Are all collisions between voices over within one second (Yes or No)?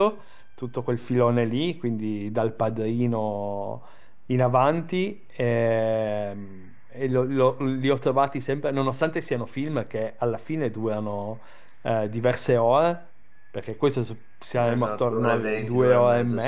No